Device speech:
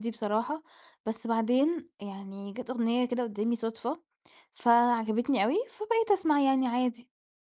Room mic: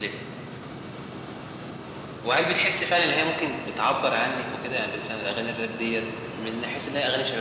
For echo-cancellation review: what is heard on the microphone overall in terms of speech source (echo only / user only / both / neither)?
user only